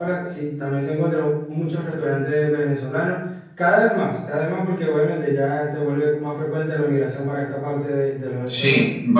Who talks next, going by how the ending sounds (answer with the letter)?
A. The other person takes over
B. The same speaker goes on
A